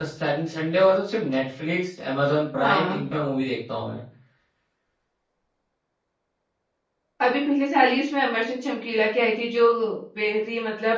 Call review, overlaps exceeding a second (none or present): none